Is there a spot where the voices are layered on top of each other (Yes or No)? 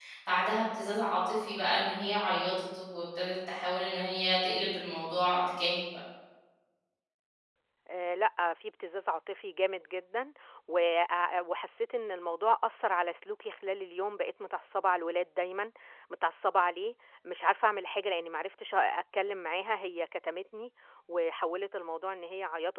No